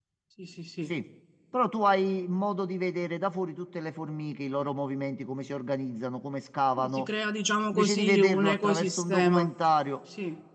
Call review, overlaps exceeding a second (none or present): present